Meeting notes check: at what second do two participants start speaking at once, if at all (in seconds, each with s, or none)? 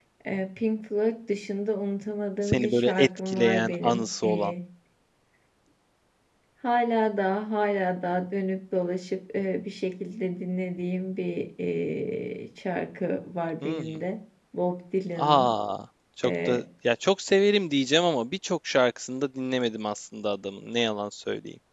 2.5 s